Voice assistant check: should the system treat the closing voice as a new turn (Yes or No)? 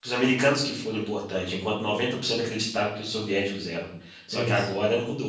No